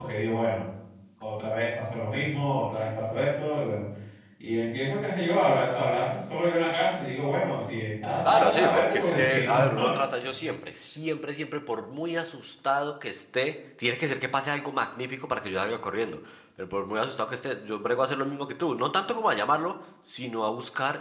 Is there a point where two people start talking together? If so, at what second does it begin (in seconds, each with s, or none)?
8.2 s